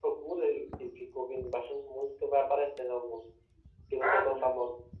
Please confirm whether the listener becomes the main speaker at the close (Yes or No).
Yes